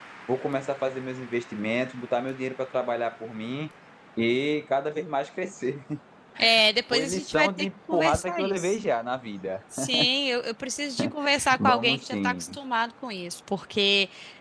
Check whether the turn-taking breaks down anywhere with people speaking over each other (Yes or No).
Yes